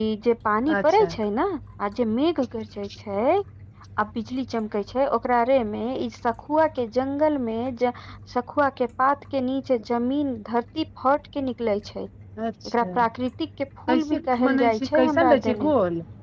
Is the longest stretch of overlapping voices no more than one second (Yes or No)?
No